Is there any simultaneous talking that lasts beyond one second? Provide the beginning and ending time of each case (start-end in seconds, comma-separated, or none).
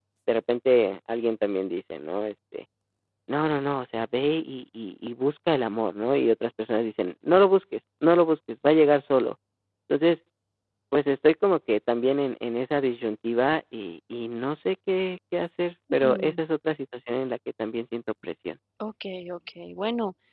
none